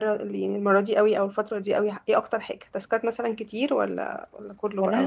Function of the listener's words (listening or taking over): taking over